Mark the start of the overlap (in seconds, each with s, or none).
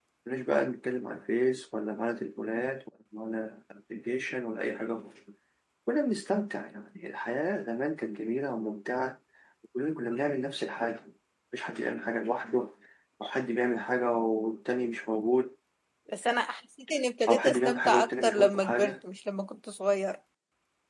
17.3 s